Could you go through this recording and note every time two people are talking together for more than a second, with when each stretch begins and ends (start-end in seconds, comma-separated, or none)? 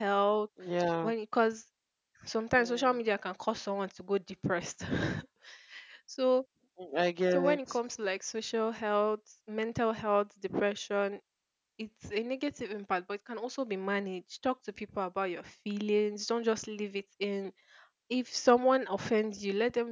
none